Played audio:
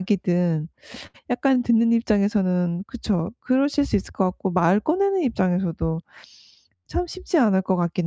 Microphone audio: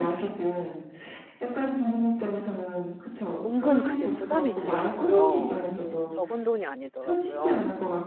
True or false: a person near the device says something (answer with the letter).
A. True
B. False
A